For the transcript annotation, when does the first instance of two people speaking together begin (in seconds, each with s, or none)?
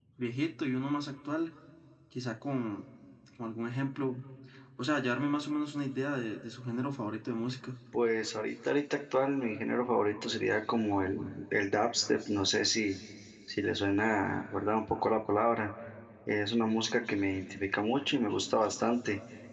none